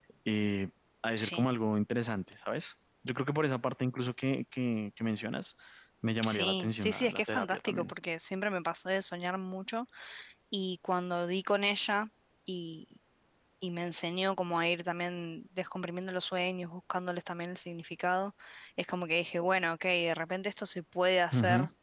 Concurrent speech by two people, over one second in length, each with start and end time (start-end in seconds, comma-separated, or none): 6.2-7.9